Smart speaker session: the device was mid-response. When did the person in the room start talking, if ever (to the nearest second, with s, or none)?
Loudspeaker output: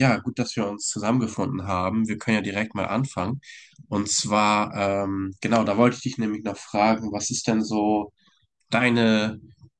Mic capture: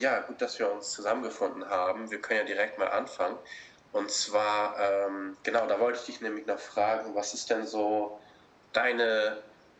none